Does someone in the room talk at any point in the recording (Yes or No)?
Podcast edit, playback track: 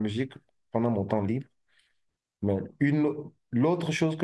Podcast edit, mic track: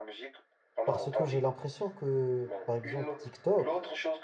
Yes